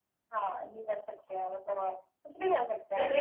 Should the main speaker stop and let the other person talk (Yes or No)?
Yes